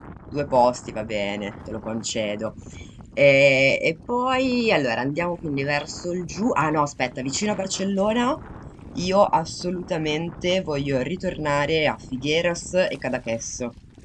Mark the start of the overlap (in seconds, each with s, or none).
none